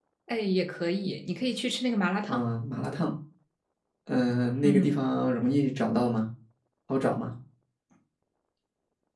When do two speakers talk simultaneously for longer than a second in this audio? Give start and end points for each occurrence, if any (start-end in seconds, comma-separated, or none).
none